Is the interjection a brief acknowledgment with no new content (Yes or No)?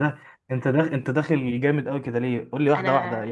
Yes